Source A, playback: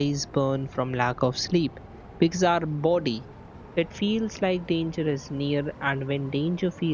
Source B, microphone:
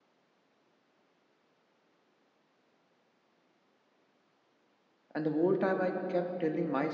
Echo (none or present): none